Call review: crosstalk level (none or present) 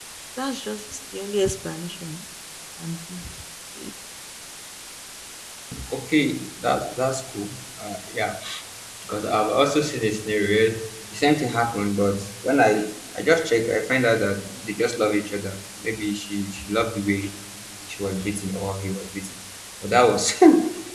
none